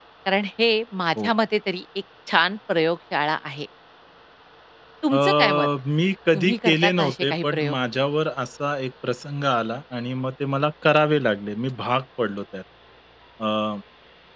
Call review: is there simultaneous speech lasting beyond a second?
Yes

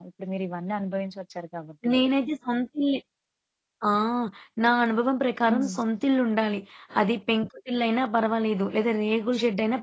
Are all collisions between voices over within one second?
Yes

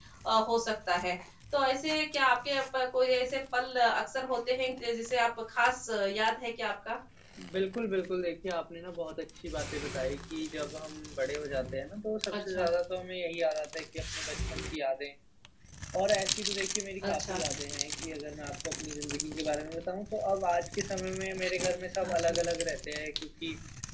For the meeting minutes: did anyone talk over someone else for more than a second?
No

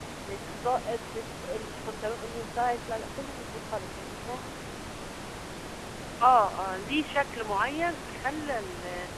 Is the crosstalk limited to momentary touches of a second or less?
Yes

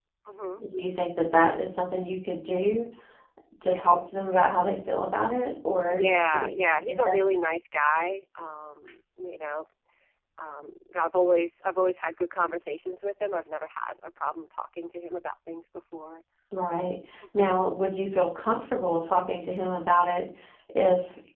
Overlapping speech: Yes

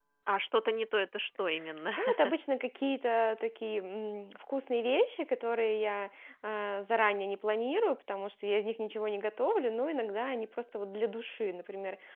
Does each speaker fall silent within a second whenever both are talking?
Yes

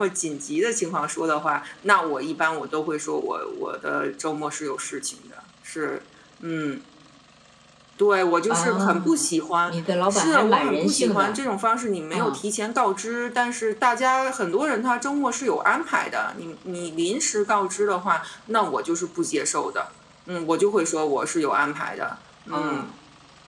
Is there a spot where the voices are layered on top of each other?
Yes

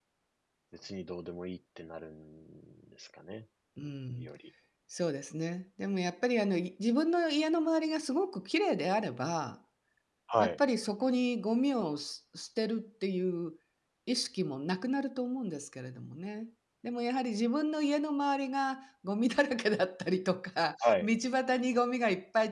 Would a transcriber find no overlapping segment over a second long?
Yes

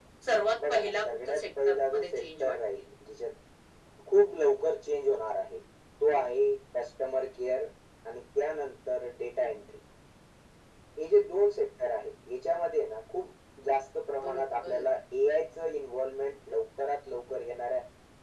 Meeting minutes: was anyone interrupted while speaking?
Yes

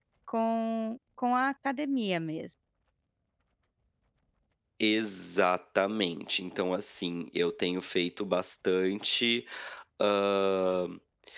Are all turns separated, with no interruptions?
Yes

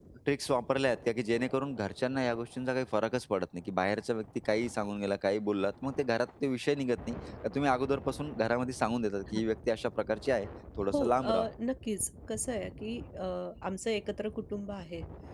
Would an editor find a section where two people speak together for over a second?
No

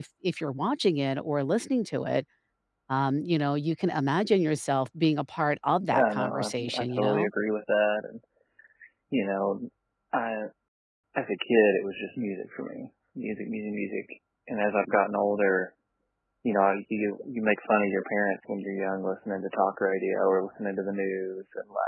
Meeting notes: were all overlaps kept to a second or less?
No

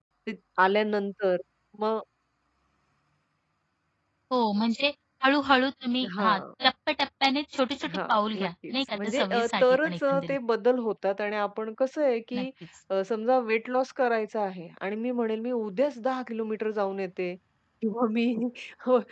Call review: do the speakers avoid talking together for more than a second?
No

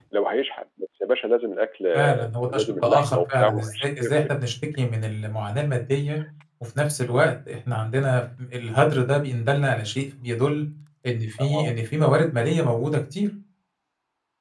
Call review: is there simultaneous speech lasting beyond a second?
Yes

